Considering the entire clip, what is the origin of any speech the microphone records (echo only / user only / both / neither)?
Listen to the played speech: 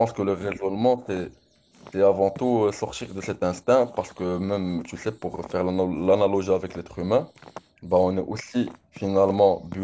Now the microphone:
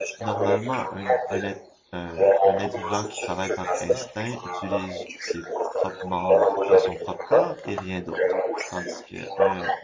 both